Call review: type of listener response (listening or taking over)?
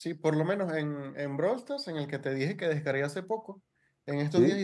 listening